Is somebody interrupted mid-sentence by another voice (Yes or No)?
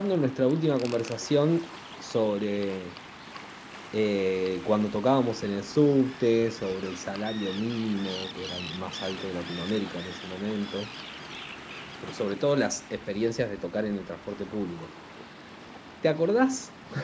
No